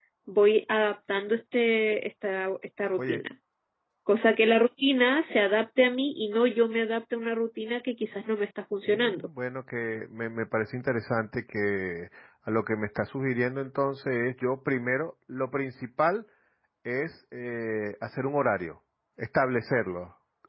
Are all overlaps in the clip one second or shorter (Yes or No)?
Yes